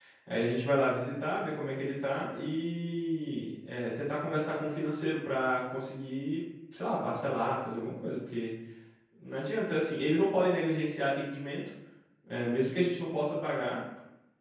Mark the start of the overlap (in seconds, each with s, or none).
none